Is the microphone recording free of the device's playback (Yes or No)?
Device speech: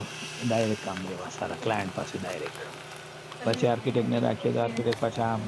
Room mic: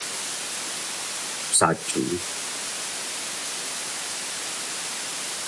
Yes